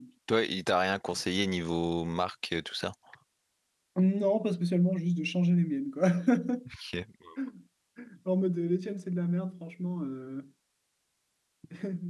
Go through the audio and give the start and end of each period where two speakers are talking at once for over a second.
none

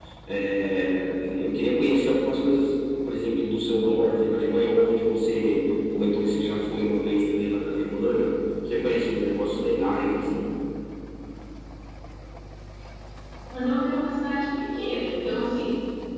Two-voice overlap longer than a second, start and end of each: none

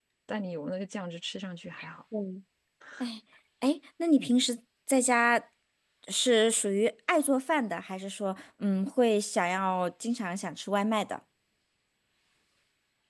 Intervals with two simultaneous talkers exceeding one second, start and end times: none

